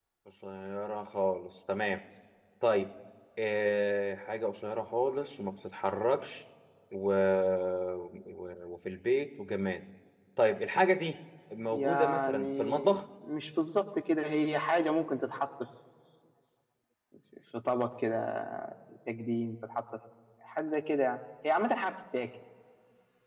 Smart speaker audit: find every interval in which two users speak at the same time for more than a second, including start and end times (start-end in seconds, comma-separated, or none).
11.7-13.0